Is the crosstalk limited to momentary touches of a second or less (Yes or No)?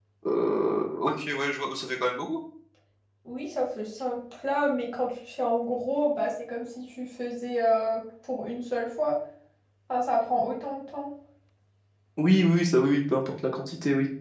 Yes